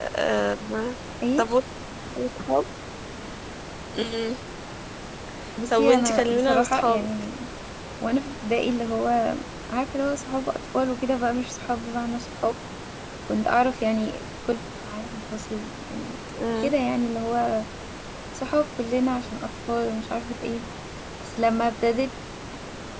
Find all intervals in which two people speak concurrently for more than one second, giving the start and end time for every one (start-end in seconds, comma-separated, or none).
5.7-7.1